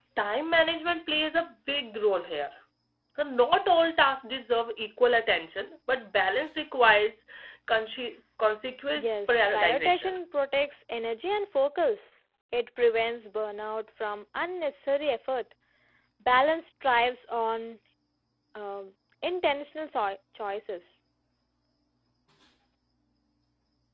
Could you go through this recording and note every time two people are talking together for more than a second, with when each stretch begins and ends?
8.9-10.2

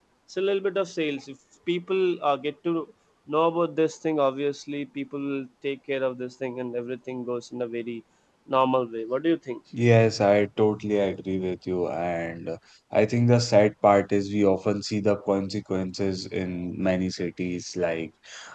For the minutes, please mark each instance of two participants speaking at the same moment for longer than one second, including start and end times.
none

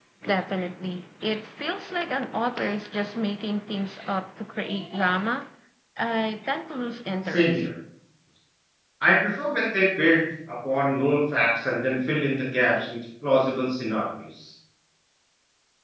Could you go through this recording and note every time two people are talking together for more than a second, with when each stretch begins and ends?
none

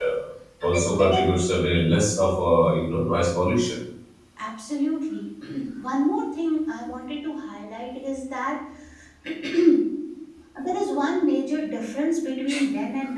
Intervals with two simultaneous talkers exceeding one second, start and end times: none

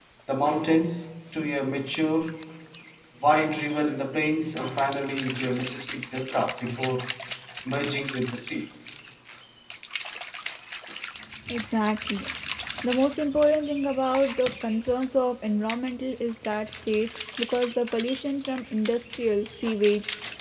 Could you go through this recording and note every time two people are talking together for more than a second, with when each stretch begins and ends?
none

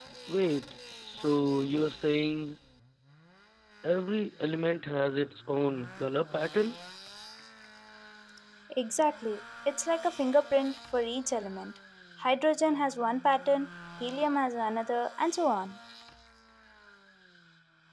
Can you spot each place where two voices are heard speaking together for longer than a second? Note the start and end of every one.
none

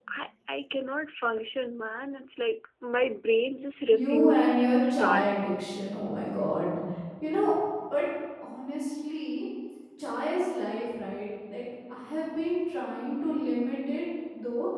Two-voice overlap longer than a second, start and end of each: 3.9-5.3

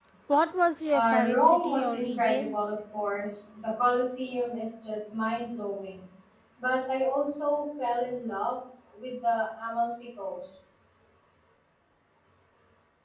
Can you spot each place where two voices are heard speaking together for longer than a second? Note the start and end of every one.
0.9-2.6

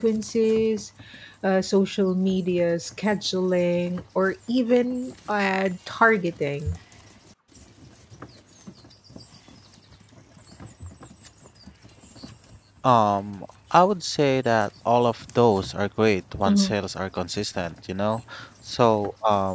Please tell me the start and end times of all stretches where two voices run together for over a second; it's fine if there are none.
none

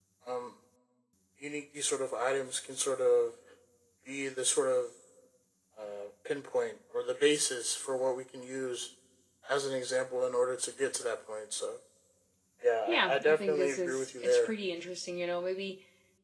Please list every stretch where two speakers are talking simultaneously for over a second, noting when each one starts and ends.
12.9-14.5

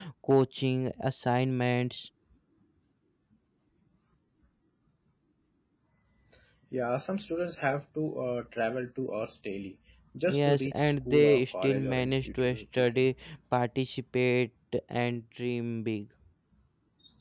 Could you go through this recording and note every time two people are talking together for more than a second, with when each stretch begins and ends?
10.3-13.1

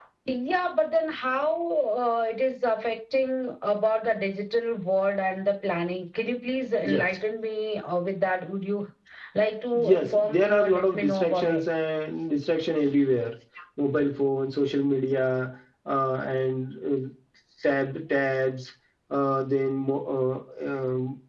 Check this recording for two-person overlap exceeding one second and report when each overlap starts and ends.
9.7-11.6

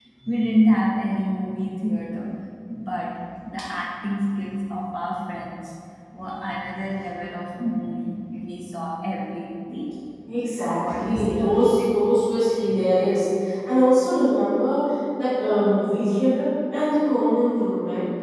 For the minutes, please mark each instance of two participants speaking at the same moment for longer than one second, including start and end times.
10.7-11.9

